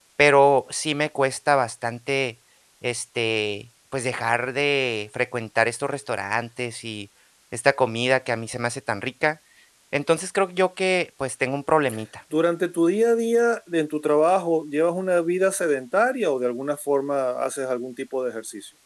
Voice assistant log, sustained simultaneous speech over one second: none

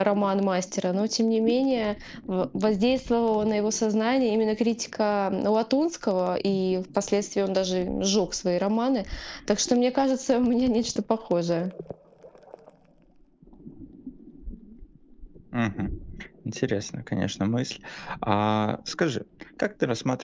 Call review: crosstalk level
none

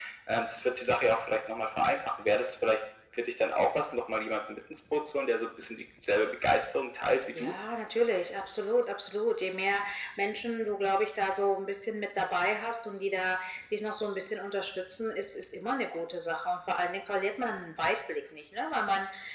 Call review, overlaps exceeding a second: none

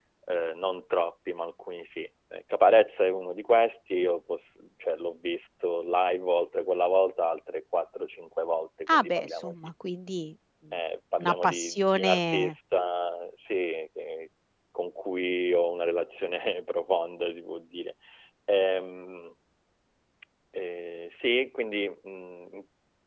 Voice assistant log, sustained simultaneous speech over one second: present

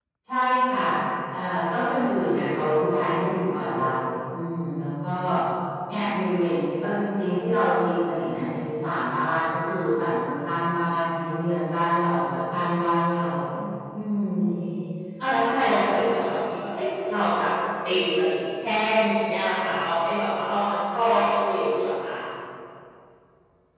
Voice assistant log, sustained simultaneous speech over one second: none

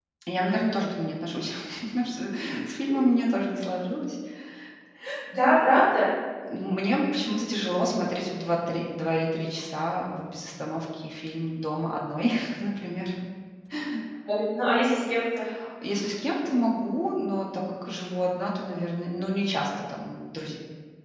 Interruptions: none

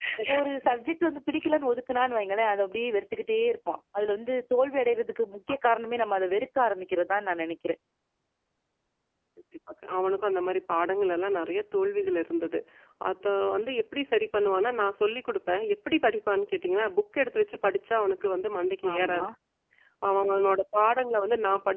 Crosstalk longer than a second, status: none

